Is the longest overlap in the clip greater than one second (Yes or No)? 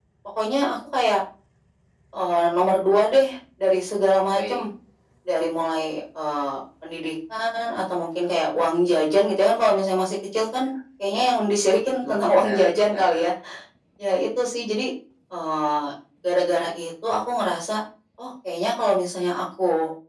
Yes